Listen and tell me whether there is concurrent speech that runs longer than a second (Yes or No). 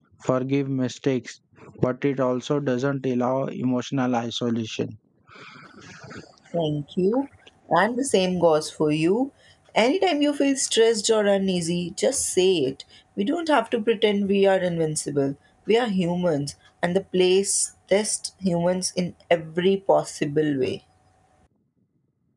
No